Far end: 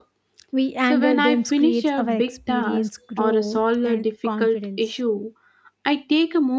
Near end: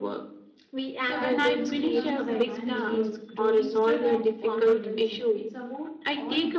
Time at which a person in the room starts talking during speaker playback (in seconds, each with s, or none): 1.0 s